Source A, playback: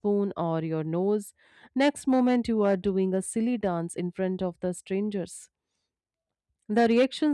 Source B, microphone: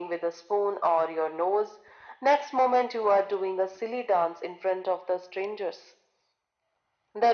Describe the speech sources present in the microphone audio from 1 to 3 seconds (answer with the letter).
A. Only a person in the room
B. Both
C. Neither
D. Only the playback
D